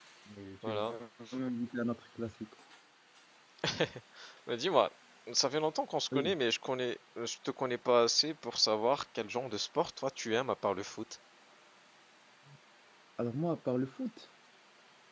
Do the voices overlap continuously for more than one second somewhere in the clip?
No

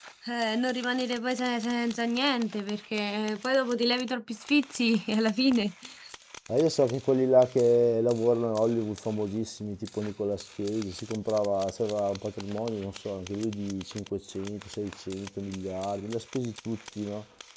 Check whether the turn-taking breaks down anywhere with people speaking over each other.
No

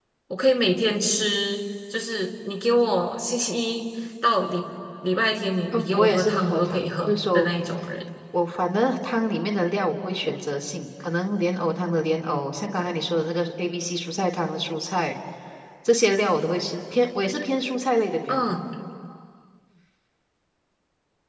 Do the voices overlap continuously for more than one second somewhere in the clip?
Yes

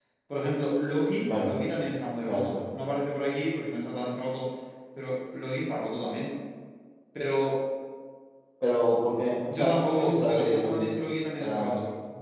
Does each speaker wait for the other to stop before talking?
No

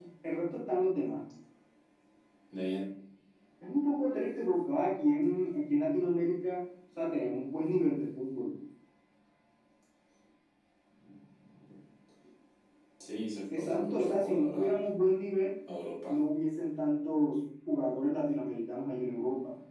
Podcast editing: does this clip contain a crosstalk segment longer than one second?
Yes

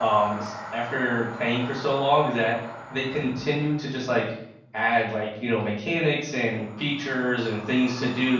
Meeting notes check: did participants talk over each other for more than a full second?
No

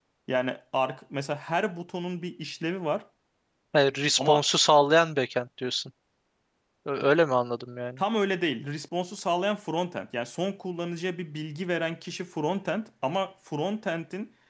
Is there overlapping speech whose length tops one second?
No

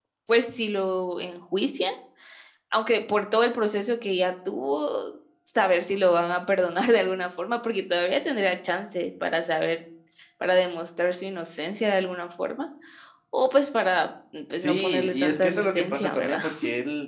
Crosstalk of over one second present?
Yes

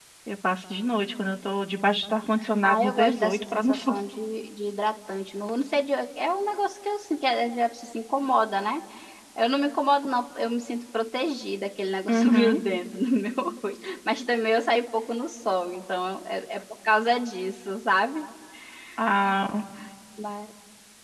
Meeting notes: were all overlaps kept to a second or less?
No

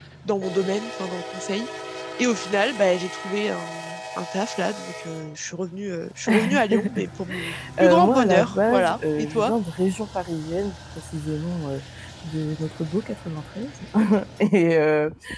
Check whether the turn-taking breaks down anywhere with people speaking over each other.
Yes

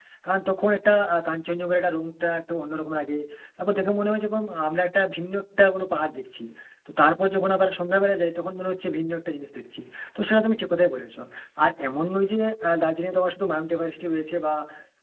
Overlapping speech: No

